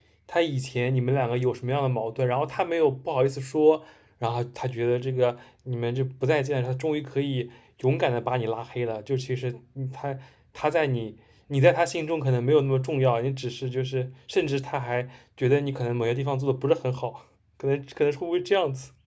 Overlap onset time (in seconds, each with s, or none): none